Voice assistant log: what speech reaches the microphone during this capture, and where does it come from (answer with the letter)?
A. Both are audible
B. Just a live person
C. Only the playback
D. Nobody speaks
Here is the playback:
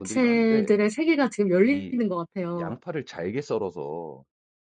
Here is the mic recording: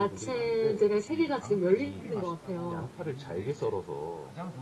A